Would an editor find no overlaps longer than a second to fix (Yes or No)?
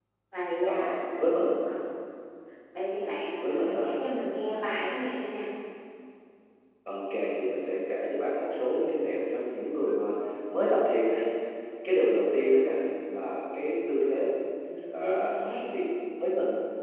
Yes